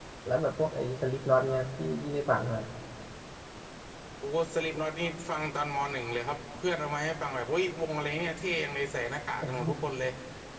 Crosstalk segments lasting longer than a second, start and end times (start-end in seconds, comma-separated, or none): none